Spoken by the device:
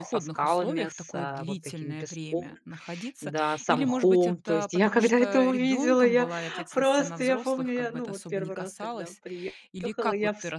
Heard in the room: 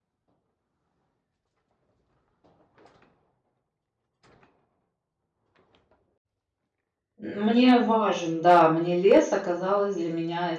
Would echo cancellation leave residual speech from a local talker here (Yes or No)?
Yes